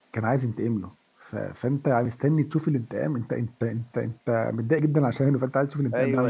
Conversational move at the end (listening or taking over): taking over